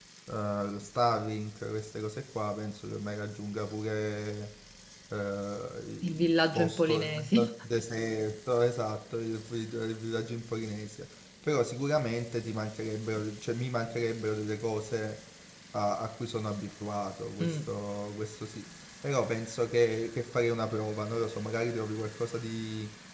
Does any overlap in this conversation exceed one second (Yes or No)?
Yes